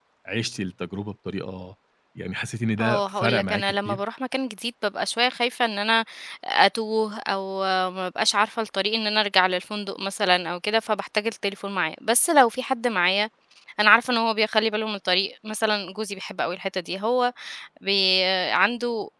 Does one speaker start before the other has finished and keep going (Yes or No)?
Yes